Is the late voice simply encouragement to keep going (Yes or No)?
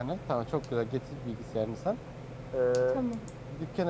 Yes